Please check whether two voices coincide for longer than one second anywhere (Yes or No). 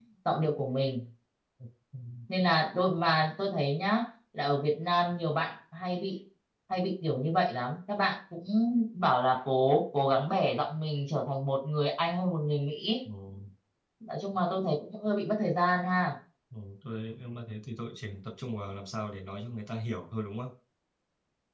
No